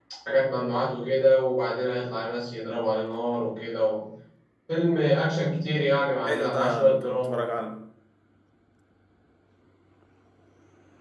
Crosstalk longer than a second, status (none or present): present